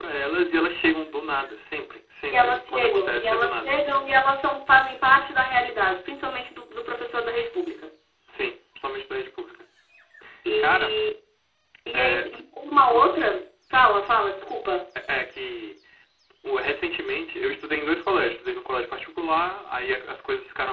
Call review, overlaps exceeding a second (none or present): present